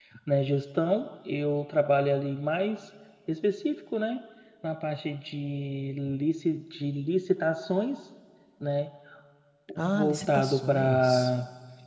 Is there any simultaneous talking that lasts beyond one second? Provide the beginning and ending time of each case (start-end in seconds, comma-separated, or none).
9.9-11.3